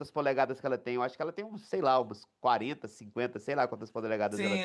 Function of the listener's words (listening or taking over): taking over